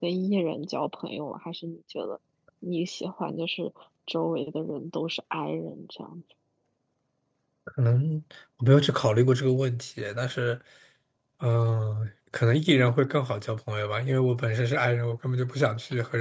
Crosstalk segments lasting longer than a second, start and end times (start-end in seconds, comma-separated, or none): none